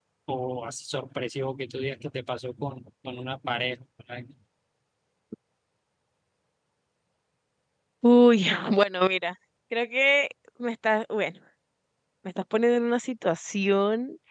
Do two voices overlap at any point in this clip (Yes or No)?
No